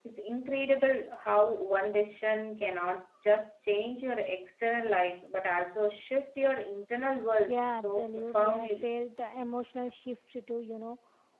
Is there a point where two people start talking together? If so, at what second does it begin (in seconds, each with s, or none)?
7.5 s